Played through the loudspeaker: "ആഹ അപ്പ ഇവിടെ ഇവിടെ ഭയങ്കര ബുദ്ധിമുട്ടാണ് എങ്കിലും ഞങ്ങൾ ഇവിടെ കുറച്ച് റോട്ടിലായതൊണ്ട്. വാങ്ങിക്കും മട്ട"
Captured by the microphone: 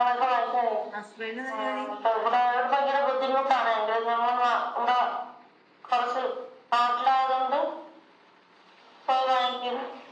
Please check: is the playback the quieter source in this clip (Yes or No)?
No